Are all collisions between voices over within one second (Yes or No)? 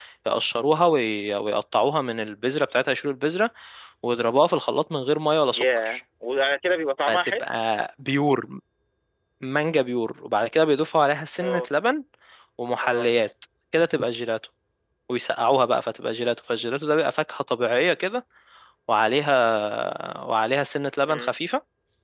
Yes